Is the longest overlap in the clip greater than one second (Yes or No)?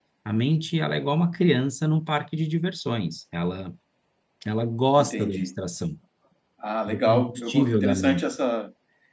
Yes